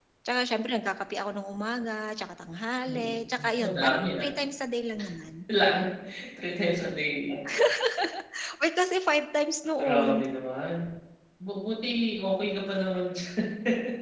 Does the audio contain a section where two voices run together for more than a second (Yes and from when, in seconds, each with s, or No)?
Yes, from 2.9 s